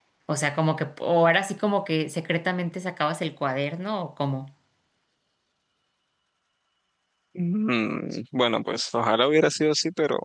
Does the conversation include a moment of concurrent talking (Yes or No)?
No